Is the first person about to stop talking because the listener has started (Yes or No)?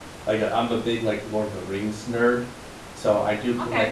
No